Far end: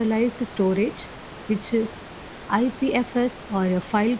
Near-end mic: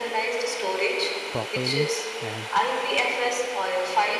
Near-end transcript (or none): profiling, and